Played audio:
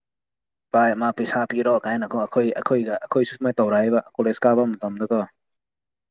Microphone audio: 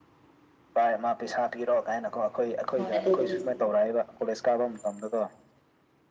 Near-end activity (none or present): present